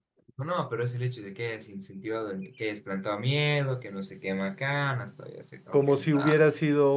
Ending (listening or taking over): taking over